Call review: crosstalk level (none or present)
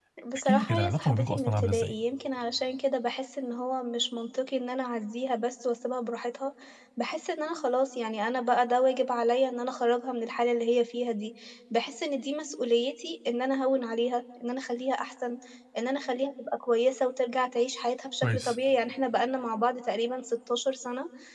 present